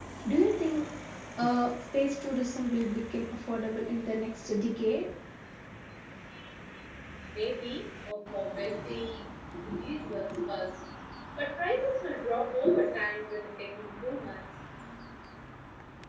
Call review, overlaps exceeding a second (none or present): none